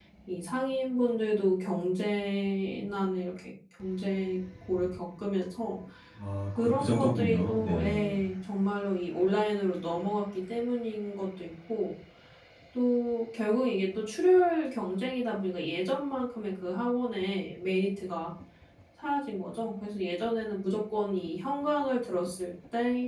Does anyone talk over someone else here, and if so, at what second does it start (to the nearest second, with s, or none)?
7 s